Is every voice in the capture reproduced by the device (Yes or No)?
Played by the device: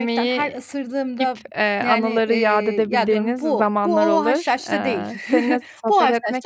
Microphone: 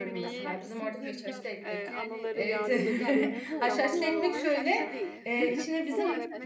No